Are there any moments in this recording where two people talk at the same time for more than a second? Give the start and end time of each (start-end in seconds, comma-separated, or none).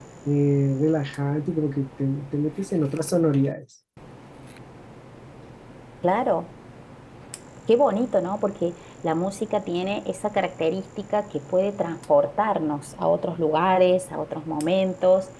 none